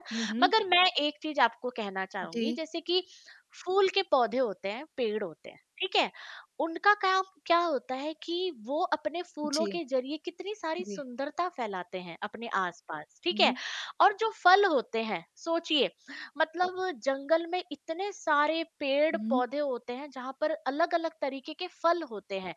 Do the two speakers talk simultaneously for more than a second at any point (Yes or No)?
No